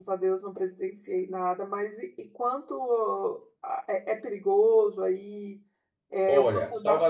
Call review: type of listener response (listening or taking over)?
taking over